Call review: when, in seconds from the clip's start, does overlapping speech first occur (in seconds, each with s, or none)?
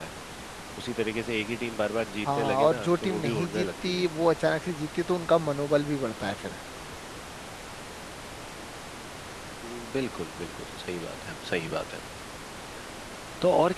2.2 s